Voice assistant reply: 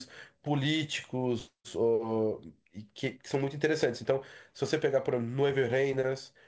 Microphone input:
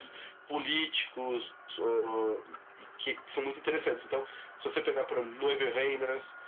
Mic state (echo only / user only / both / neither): echo only